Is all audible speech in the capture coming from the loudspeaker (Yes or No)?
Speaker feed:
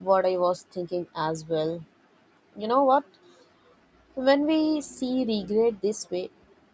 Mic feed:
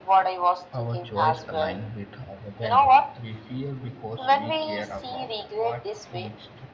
No